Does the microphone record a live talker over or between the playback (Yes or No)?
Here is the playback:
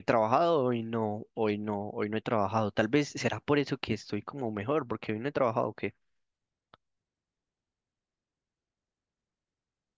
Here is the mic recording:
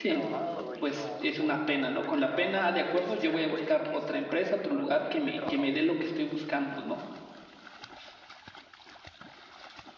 Yes